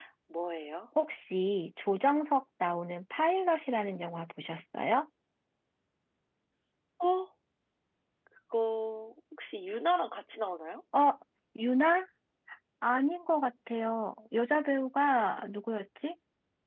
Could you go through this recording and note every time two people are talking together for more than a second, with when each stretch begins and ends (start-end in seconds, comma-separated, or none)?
none